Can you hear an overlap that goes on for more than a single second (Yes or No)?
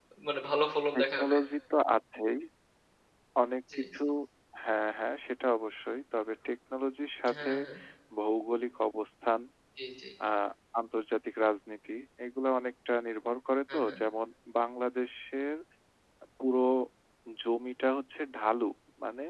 No